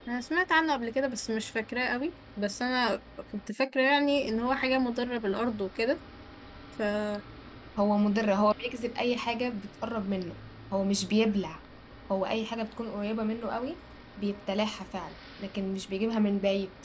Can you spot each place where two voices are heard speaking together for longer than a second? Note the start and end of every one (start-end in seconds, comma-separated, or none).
none